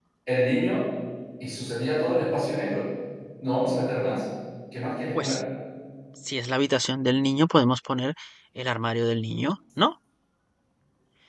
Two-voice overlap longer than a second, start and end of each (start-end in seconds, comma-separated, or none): none